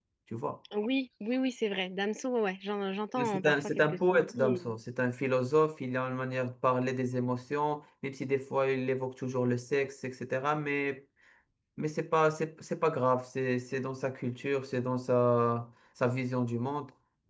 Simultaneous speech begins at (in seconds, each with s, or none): 3.2 s